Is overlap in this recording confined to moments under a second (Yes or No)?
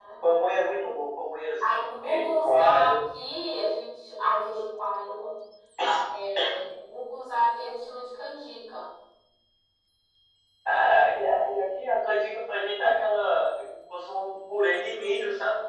No